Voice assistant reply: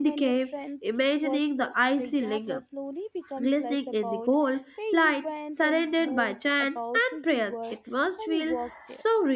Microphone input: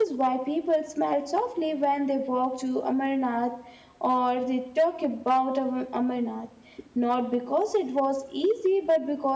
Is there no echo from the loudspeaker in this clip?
Yes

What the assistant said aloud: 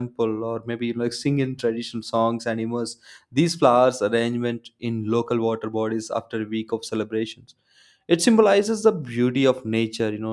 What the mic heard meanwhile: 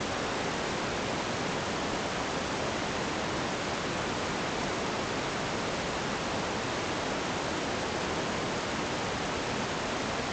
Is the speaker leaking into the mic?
No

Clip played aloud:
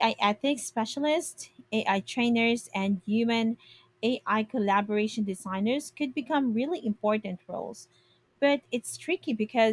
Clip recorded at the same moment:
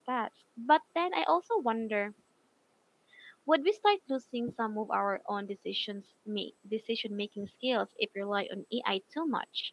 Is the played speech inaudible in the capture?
Yes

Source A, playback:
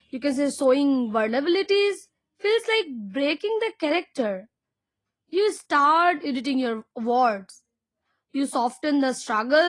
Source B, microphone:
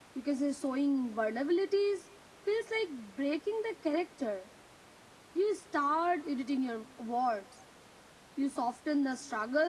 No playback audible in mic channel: No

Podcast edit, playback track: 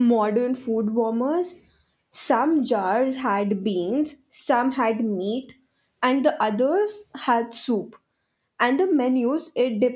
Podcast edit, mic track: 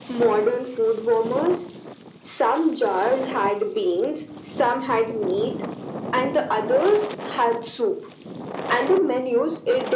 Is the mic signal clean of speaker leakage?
No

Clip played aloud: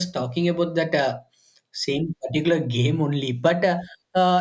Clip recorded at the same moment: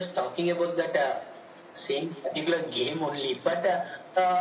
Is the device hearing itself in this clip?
Yes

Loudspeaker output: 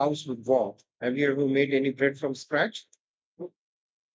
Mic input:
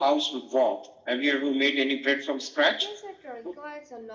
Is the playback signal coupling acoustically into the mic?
Yes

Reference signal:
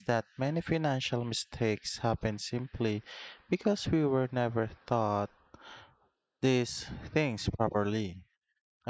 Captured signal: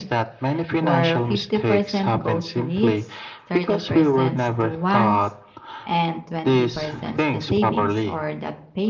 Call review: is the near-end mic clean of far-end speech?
No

